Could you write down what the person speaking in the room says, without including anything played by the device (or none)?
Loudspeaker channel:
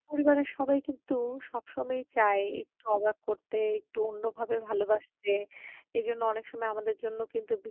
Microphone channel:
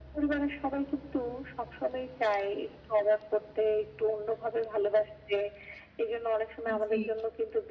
উম জি।